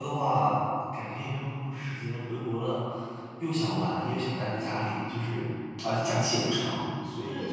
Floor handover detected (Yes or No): Yes